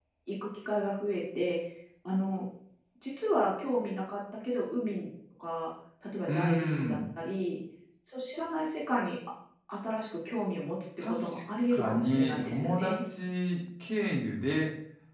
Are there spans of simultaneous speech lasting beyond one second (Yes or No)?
Yes